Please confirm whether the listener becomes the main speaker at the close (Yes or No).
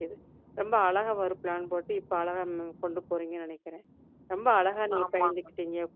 No